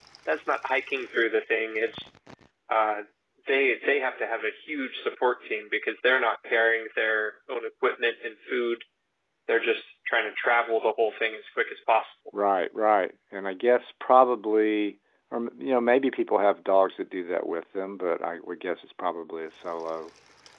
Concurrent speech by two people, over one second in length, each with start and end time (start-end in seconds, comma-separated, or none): none